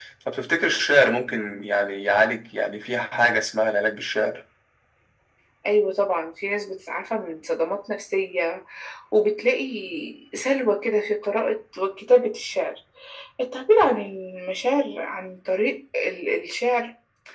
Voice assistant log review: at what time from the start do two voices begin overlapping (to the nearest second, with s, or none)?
none